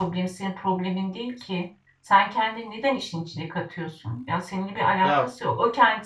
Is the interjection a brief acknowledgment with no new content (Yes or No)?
Yes